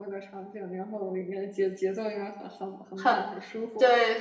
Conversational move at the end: taking over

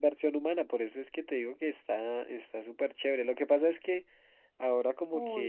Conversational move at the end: listening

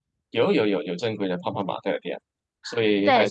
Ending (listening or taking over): taking over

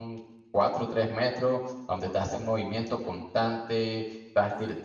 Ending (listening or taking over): listening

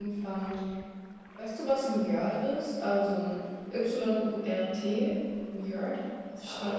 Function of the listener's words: taking over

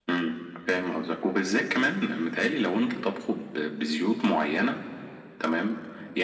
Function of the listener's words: listening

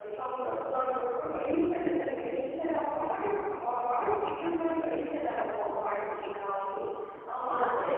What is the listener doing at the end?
listening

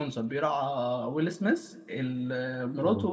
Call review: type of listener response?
listening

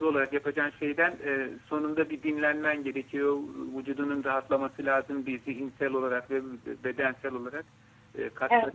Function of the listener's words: listening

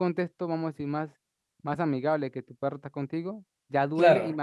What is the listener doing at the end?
listening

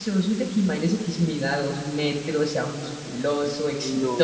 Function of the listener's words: taking over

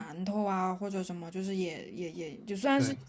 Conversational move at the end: listening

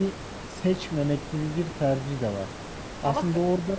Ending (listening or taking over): listening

